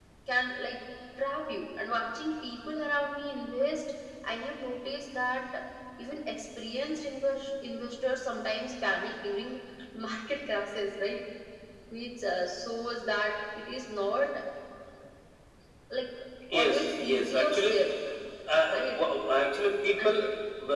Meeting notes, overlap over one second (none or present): present